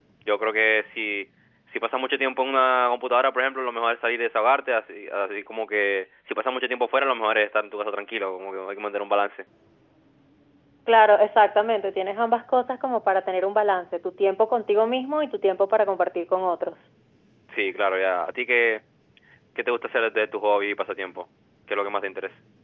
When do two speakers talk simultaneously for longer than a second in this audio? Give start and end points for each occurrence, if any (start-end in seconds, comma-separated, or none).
none